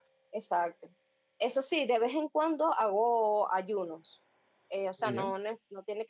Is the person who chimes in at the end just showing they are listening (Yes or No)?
Yes